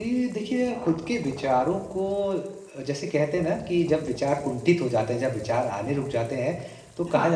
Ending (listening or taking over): listening